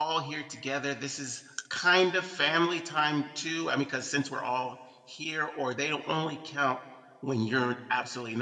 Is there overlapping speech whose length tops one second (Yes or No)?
No